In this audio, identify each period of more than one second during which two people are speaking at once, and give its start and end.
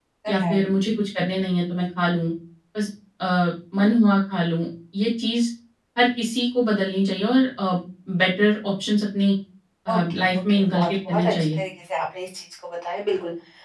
9.9-11.3

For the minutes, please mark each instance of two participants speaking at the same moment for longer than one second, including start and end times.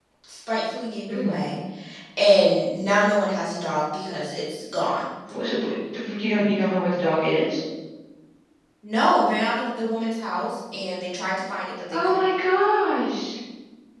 none

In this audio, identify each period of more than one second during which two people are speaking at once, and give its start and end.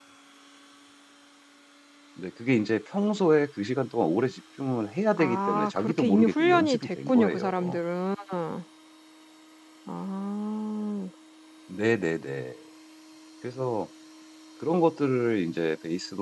5.2-7.8

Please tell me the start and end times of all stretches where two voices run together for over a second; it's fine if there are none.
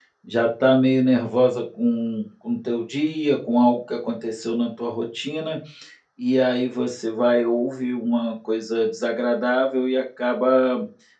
none

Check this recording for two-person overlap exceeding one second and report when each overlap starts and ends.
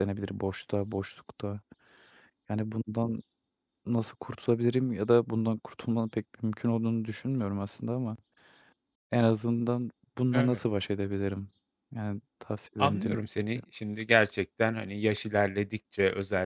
none

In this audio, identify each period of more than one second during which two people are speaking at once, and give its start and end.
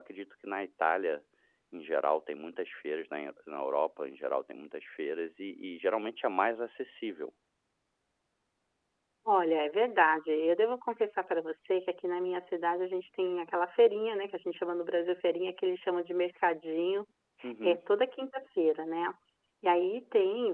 none

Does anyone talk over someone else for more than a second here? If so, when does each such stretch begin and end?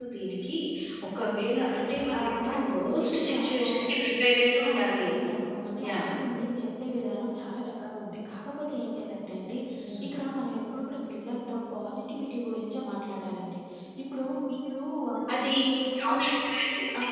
2.1-4.1

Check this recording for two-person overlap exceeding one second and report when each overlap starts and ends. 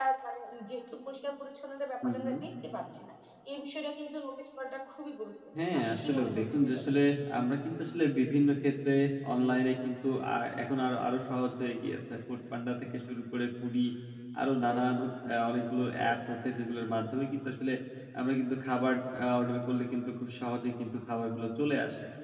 5.6-7.0

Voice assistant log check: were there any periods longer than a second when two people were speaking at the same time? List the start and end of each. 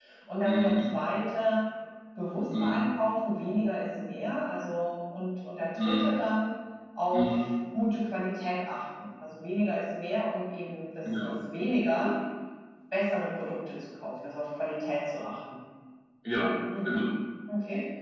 none

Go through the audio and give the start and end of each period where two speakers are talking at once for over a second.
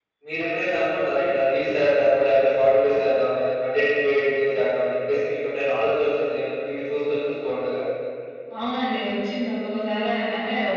none

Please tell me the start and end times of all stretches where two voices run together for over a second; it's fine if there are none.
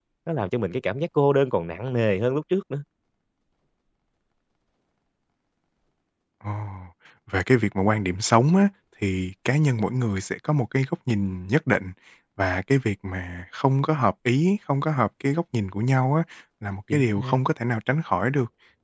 none

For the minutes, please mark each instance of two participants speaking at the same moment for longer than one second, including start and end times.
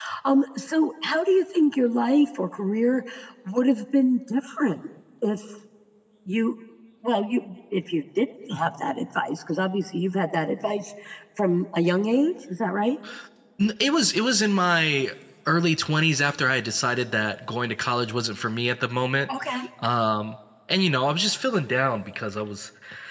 none

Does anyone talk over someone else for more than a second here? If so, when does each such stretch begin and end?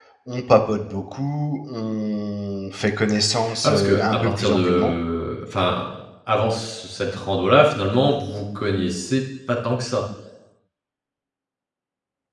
3.6-4.9

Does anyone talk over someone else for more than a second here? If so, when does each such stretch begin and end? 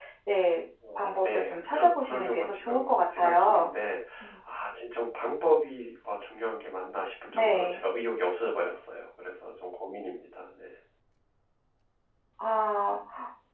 0.9-3.7

